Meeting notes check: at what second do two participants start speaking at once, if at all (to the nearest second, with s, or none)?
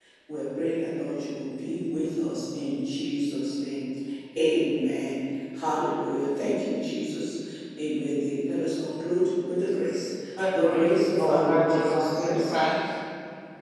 11 s